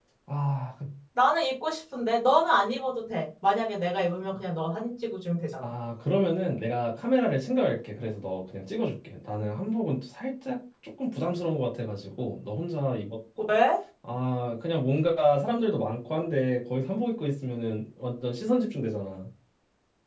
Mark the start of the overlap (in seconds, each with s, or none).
none